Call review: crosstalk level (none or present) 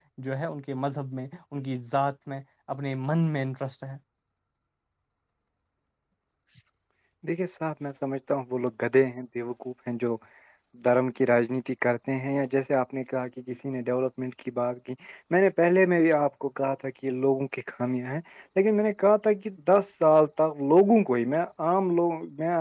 none